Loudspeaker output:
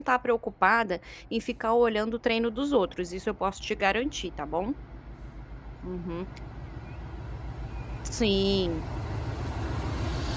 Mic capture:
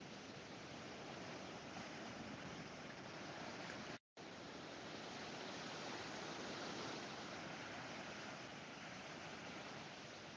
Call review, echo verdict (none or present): none